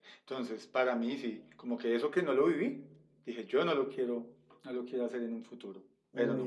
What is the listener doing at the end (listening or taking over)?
taking over